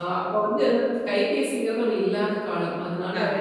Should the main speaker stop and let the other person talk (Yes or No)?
No